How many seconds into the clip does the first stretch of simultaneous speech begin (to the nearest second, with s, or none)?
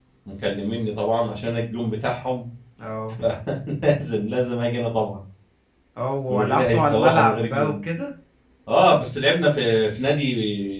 6 s